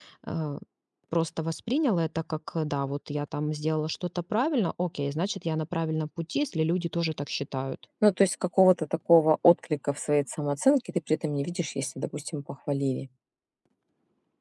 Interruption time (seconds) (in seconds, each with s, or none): none